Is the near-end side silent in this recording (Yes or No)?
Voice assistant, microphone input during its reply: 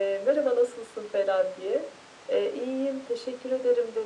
Yes